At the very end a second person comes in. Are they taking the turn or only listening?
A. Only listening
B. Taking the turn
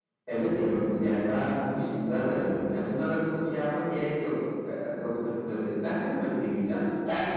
B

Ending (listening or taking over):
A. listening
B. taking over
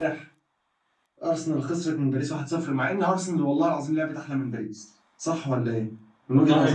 B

